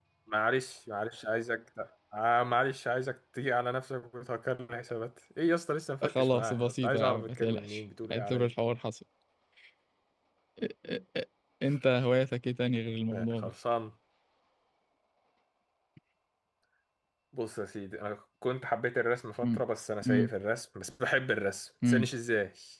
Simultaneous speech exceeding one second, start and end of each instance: 6.0-8.5

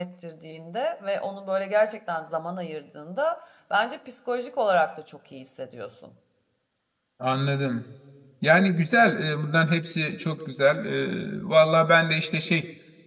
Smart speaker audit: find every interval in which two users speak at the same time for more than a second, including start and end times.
none

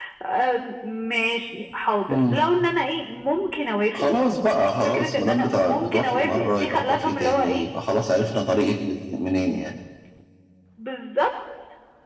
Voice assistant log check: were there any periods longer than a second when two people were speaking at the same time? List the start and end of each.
4.8-7.7

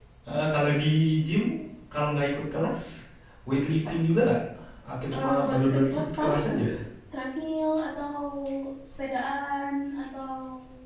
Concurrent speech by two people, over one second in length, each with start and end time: 5.1-6.6

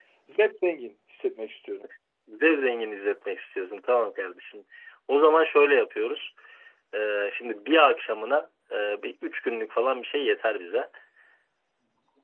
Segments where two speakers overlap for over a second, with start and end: none

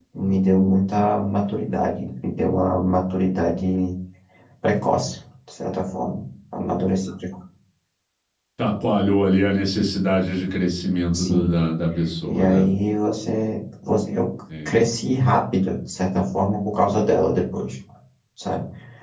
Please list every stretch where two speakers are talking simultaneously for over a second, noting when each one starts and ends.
none

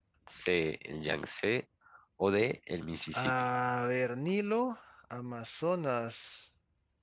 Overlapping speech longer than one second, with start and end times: none

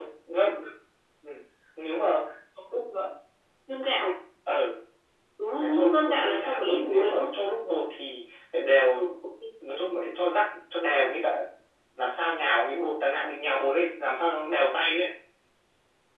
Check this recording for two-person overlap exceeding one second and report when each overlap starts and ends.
5.6-7.3

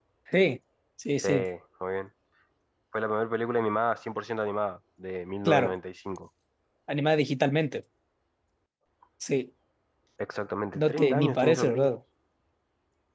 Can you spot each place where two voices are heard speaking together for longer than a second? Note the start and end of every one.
10.8-12.0

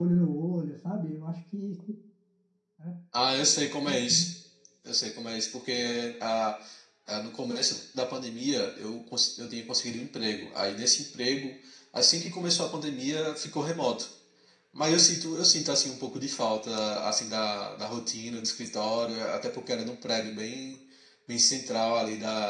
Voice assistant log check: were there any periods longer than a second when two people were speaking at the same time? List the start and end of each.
none

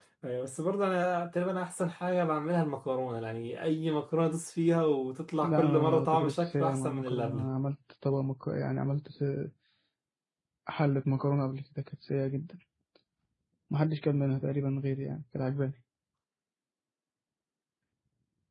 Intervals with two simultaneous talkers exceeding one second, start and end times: 5.4-7.5

